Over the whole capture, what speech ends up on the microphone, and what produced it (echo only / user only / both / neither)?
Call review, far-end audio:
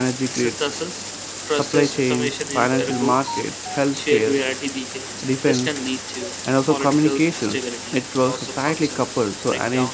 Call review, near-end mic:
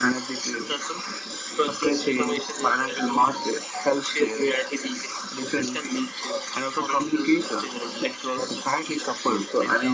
echo only